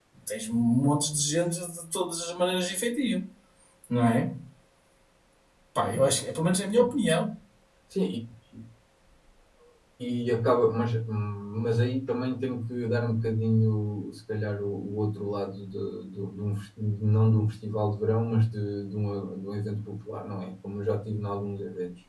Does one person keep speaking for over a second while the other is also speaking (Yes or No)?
No